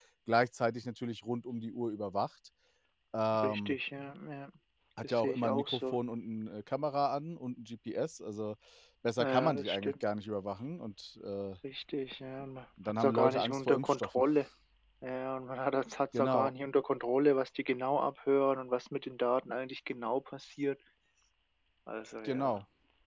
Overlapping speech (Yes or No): Yes